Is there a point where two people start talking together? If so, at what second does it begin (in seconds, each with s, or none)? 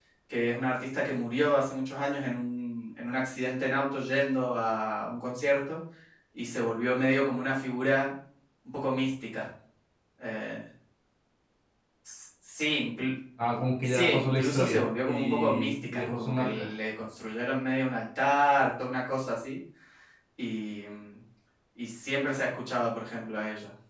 13.8 s